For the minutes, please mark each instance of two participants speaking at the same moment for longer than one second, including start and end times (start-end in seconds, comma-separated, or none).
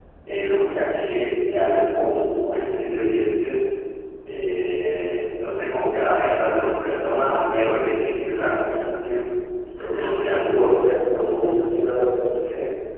10.3-11.7